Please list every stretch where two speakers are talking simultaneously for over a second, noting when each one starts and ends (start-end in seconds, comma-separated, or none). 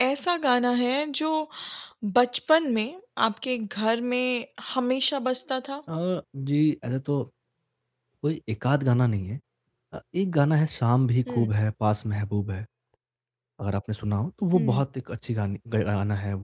none